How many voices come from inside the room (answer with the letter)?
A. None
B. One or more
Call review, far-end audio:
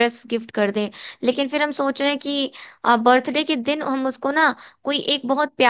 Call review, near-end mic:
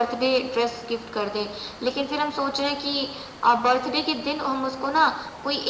A